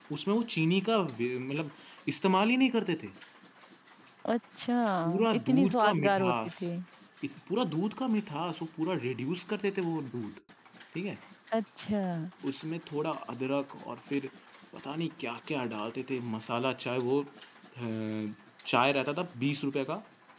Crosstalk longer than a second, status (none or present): present